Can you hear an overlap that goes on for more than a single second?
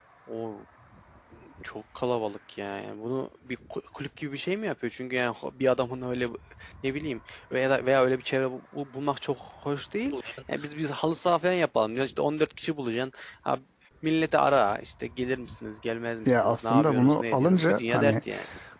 Yes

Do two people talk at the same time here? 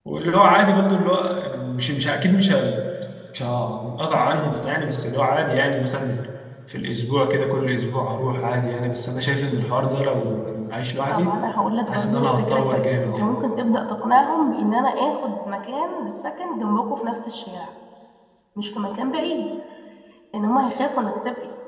Yes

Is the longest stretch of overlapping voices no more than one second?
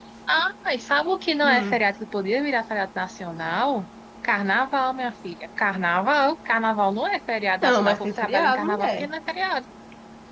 No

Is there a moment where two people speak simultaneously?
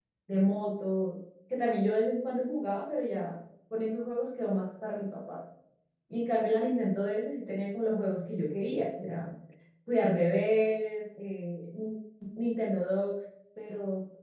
No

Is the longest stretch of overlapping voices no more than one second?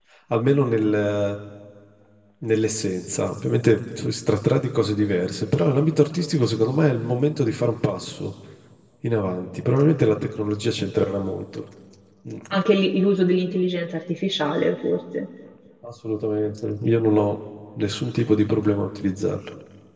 Yes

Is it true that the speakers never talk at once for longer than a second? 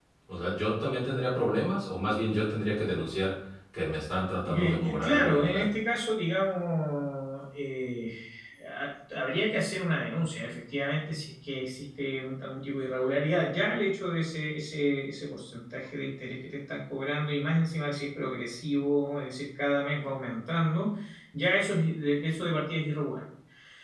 No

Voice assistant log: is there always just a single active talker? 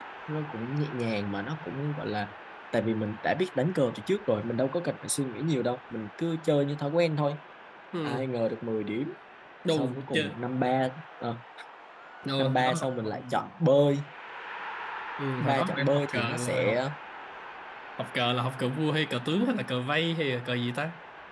No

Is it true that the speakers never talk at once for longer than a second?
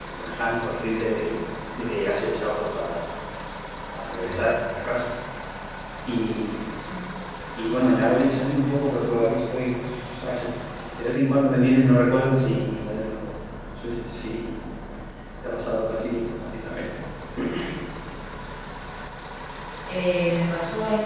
Yes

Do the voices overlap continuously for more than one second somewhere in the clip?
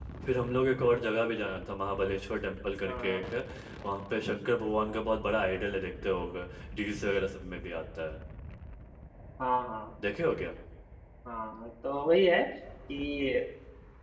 No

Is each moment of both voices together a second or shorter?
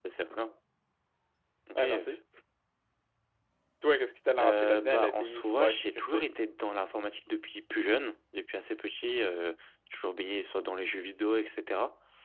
No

